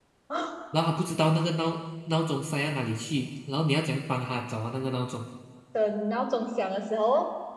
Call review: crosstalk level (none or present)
none